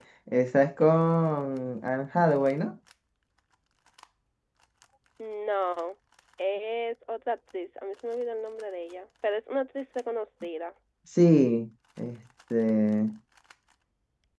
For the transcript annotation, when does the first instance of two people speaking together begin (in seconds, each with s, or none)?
none